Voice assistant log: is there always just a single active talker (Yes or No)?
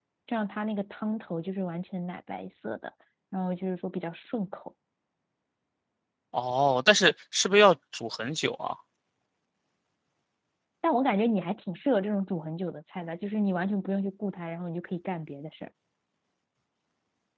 Yes